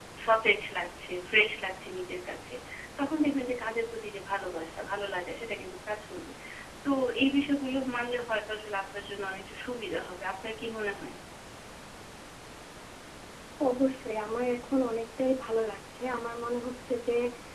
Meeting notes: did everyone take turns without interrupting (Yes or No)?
Yes